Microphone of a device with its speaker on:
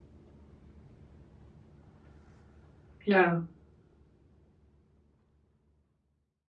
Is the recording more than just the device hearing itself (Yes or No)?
Yes